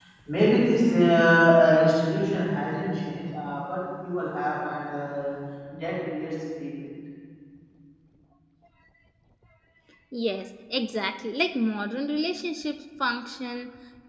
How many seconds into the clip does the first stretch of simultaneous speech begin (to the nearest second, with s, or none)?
none